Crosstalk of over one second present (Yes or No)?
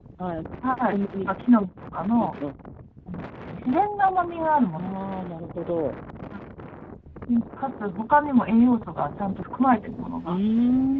No